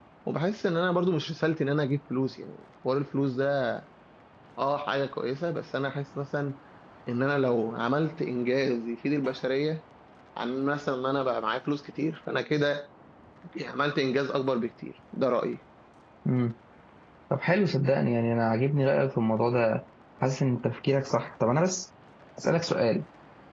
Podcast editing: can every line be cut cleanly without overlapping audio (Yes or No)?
Yes